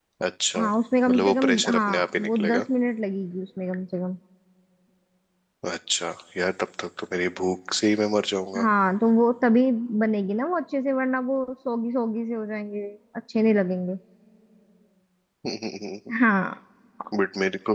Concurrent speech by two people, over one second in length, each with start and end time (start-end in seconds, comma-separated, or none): 1.1-2.6